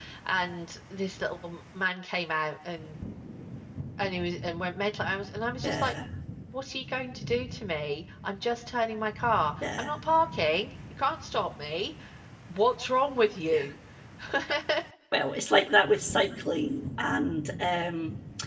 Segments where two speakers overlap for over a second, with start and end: none

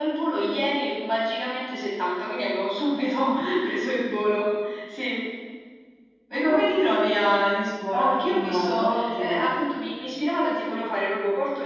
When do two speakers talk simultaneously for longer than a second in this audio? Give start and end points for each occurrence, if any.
8.0-9.4

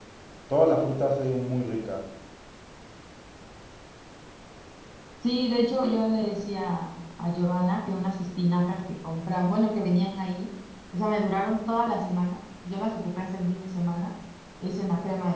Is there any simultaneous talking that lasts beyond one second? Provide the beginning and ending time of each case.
none

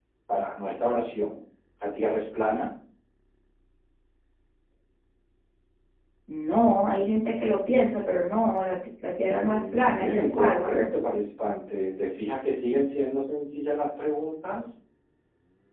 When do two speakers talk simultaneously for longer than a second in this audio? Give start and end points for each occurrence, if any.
9.3-10.9

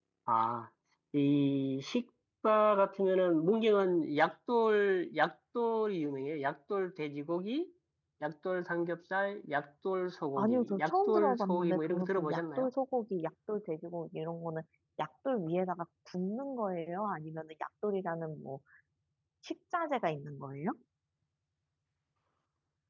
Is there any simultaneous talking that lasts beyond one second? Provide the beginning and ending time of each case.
10.4-12.7

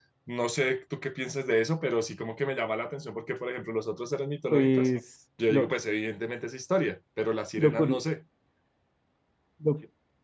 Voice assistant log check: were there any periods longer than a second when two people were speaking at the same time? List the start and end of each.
none

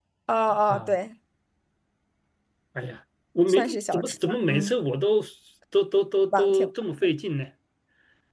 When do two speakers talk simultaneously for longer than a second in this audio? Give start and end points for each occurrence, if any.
3.5-4.7

